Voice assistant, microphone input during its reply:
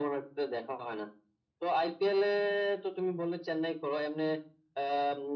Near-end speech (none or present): none